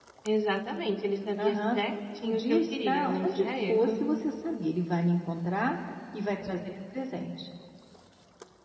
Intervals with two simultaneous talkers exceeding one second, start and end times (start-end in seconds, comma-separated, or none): 2.2-4.0